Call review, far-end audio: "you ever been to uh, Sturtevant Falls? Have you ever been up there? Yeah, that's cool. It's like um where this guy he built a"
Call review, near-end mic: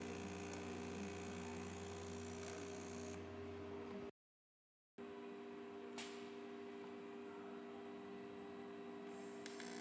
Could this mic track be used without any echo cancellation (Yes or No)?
Yes